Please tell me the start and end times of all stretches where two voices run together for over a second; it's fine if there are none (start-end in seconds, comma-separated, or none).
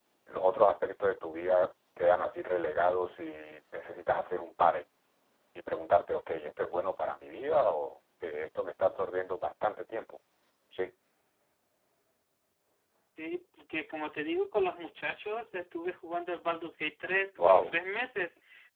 none